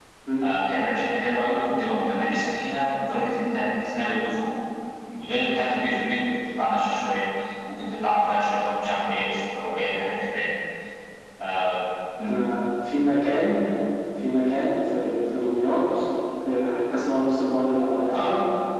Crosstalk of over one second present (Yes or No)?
No